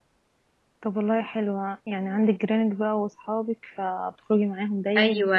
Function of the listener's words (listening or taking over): taking over